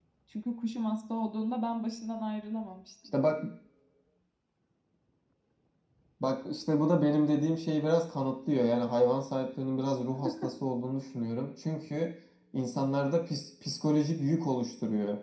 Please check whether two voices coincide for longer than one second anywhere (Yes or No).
No